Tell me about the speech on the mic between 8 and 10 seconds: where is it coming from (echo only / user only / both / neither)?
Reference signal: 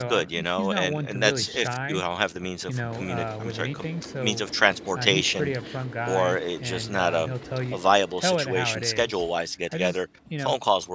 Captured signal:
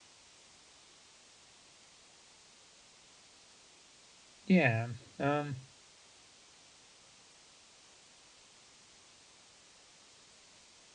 neither